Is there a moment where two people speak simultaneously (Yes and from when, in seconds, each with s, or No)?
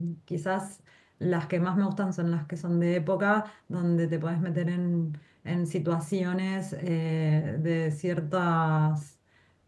No